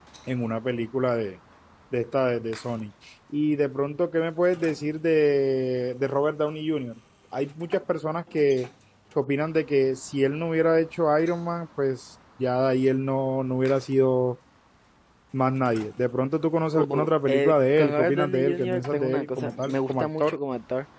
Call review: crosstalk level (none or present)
present